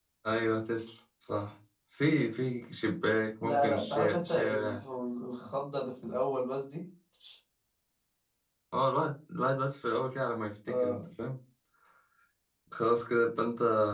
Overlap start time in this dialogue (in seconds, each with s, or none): 3.4 s